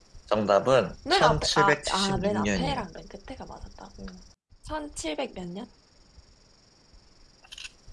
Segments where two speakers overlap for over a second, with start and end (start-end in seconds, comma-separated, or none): 1.1-2.8